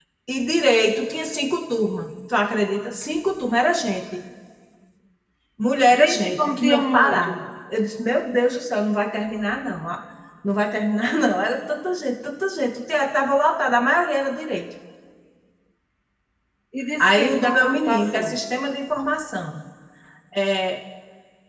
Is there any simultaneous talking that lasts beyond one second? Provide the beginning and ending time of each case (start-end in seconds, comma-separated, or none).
5.9-7.3, 17.0-18.4